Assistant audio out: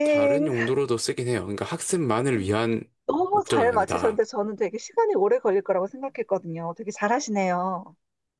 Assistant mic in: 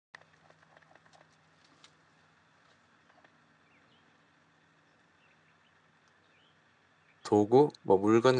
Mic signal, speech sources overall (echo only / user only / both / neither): user only